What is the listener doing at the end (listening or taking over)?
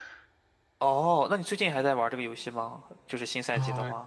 taking over